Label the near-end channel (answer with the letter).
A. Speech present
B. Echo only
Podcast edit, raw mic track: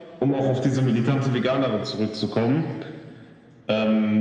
B